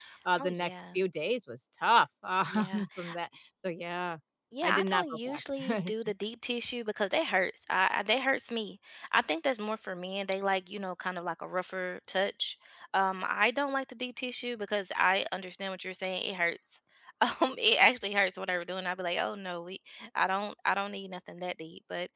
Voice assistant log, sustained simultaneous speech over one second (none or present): present